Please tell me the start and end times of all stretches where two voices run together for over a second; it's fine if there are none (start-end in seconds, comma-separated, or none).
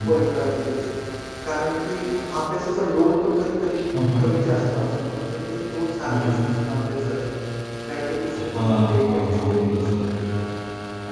8.5-9.9